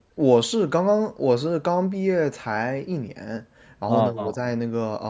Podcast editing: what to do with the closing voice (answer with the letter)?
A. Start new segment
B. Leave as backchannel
B